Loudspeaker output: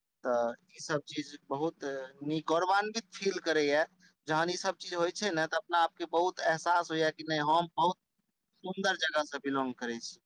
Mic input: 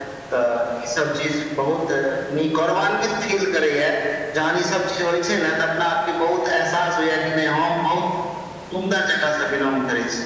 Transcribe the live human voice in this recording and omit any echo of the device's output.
none

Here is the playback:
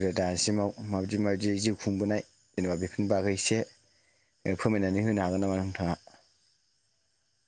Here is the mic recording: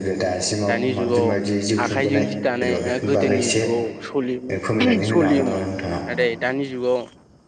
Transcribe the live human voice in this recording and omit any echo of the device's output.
दानि जुगाव आखाइजों जि दानाया गोदोनि जुगाव सलियोमोन सलियोमोन नाथाय दानि जुगाव

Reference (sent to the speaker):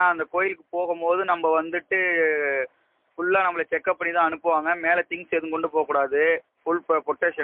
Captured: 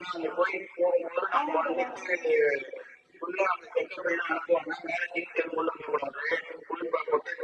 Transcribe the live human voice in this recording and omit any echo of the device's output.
ஆமா தோழா

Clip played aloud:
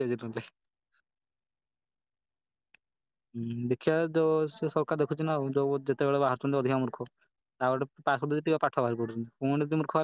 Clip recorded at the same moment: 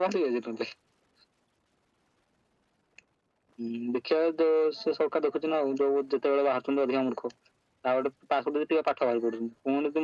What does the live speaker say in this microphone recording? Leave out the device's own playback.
none

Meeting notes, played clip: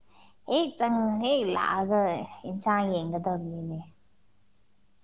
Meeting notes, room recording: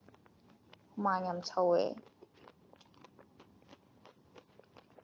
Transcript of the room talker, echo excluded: ꯍꯨꯃꯥꯡ ꯌꯥꯝ ꯁꯧꯋꯦ

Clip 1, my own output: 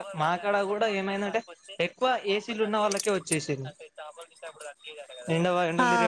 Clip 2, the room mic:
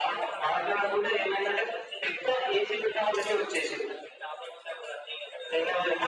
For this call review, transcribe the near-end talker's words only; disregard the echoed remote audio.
none

